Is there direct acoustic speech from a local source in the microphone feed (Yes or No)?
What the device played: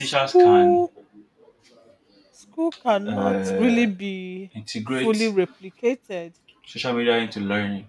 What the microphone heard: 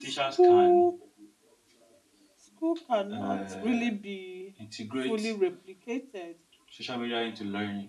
No